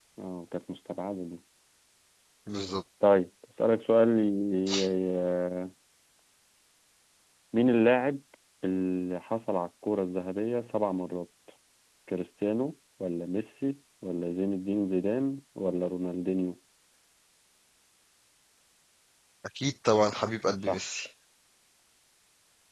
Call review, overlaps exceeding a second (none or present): none